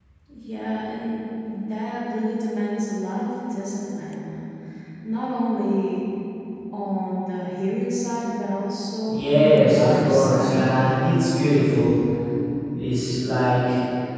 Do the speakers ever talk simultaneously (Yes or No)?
Yes